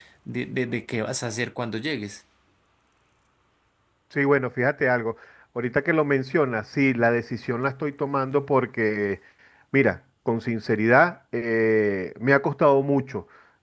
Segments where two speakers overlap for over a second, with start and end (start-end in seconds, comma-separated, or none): none